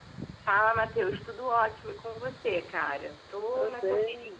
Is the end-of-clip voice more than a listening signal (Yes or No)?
Yes